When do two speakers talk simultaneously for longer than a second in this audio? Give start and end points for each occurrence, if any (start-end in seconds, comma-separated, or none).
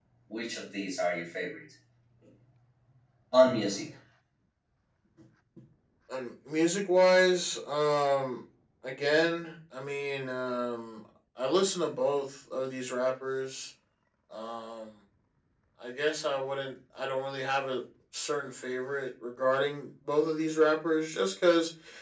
none